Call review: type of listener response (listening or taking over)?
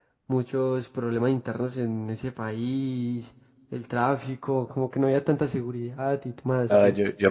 taking over